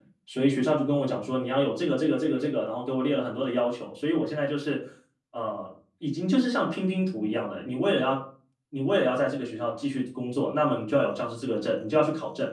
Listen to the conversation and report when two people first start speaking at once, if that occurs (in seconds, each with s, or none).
none